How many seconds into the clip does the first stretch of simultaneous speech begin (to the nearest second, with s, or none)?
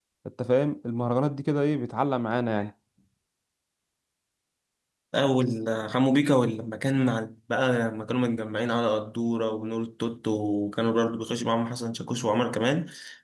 none